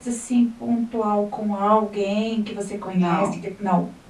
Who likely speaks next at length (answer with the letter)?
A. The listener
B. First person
B